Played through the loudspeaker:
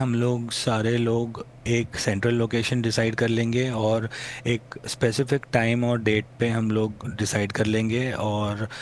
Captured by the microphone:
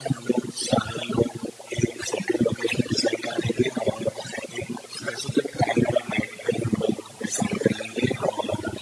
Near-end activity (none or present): none